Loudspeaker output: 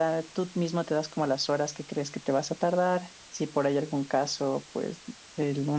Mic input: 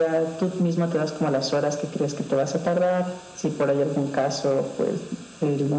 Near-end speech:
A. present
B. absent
B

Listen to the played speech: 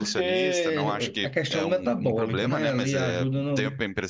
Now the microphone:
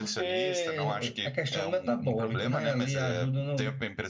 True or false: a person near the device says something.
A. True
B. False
B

